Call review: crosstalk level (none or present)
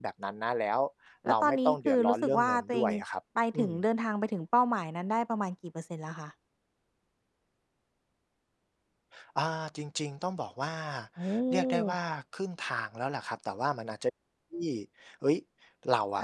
present